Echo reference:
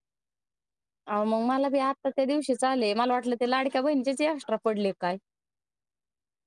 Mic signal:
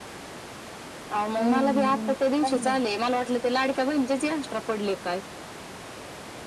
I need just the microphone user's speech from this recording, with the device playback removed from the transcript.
हम्म हम्म मग त चांगलंच

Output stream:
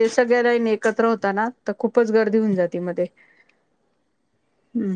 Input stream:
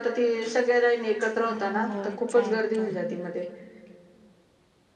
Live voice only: हो चालत

